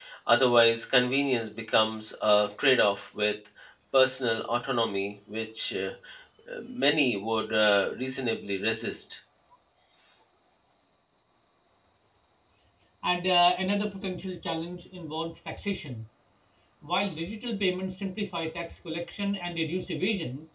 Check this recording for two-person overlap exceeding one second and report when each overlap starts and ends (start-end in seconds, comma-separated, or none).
none